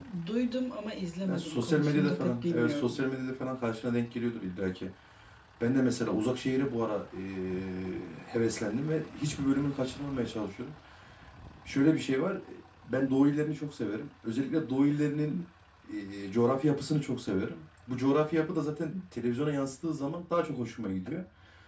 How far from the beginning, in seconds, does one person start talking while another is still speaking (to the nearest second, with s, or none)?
1 s